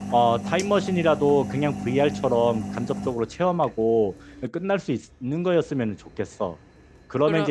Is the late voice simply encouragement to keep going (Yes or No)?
Yes